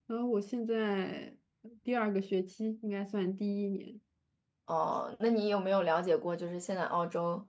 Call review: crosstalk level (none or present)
none